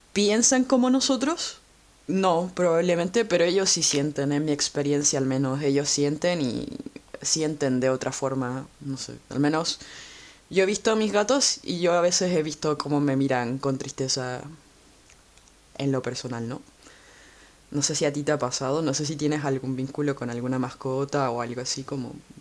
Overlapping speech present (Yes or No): No